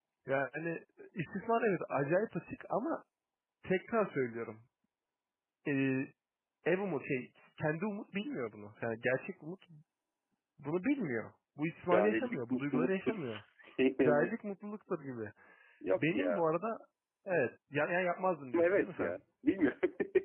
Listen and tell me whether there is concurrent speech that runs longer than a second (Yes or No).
Yes